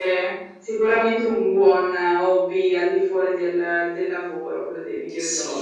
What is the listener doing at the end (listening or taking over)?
taking over